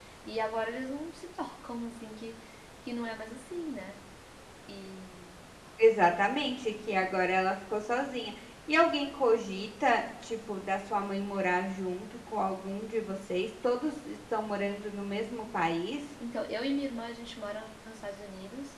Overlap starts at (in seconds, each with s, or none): none